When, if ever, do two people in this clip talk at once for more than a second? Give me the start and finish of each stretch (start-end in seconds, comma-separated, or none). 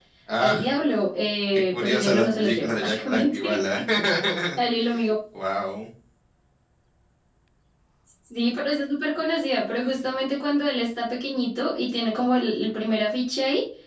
1.7-3.6